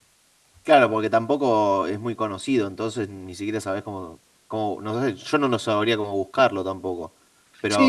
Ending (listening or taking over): taking over